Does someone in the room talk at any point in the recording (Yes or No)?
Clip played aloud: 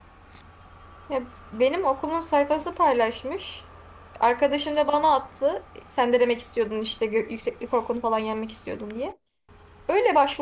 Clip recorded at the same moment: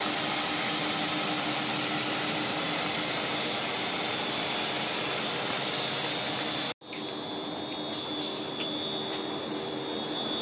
No